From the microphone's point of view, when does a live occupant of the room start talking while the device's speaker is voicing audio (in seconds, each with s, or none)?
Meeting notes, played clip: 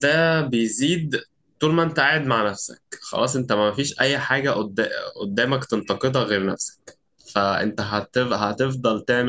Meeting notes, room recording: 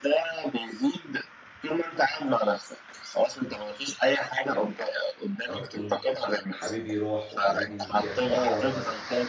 5.5 s